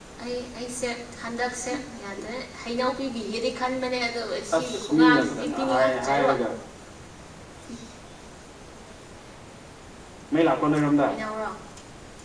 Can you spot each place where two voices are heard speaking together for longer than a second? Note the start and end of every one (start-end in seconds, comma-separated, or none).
4.6-6.3